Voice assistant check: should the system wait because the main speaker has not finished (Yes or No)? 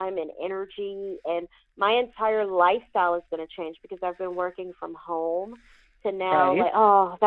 Yes